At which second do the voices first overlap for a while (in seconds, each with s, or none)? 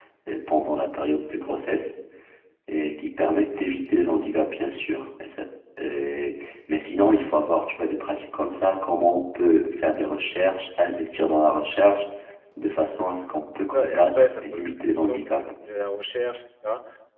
13.7 s